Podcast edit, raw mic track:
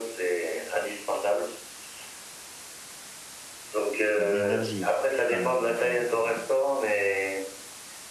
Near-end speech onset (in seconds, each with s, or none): 4.2 s